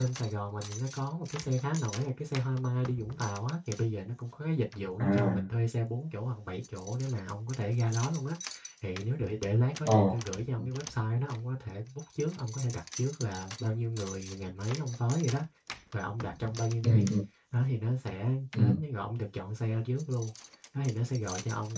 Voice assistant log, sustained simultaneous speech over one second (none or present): none